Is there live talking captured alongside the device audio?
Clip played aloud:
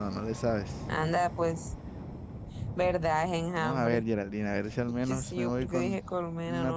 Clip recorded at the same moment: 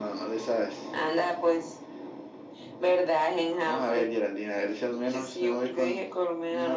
No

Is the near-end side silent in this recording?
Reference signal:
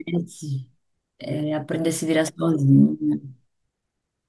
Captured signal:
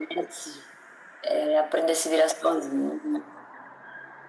Yes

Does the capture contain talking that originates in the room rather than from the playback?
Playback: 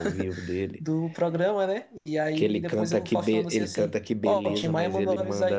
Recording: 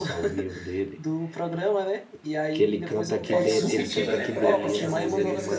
Yes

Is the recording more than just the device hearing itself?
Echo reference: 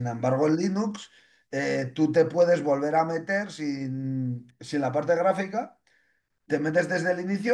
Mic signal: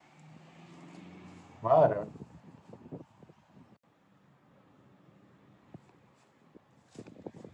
Yes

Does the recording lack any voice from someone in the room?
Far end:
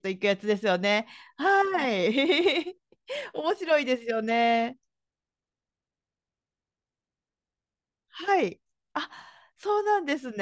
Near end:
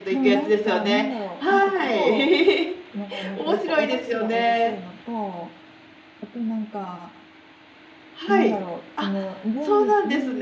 No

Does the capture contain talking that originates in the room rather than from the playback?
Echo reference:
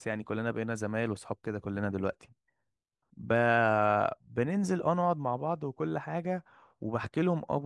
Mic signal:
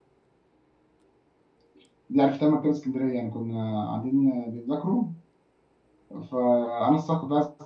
Yes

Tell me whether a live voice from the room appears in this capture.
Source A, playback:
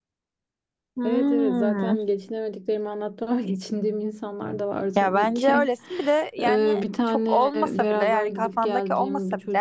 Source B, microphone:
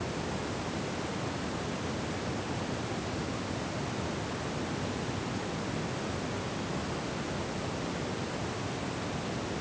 No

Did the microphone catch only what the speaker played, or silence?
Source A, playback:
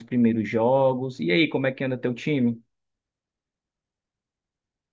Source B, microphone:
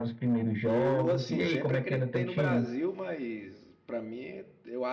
No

